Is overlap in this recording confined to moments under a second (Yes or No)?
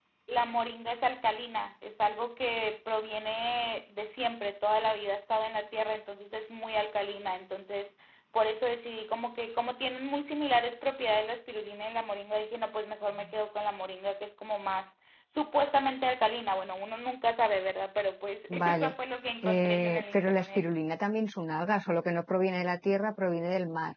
No